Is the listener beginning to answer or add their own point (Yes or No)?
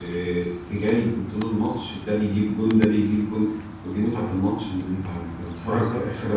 No